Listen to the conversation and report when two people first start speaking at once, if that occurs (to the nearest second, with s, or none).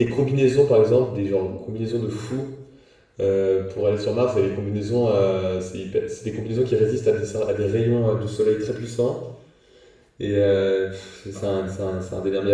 none